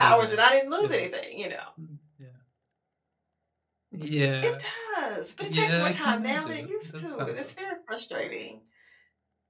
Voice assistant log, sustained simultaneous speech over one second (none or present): present